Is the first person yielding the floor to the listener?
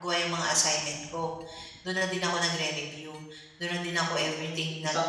Yes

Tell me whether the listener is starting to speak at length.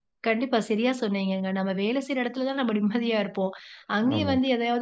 No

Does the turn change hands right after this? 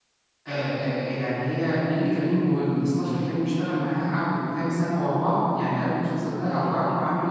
No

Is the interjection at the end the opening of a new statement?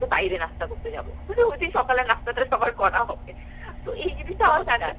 No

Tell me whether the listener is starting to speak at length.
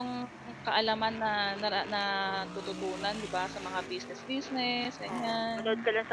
Yes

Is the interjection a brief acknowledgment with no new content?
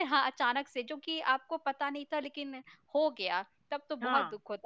Yes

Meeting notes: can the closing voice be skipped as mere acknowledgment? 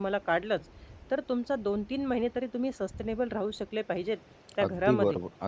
No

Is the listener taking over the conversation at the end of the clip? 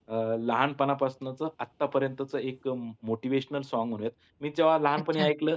No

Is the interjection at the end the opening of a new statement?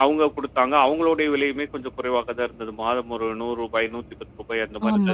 Yes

